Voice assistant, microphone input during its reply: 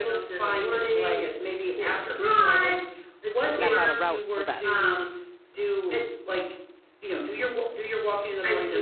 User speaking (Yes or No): Yes